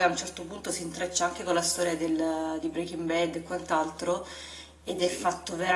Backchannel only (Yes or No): Yes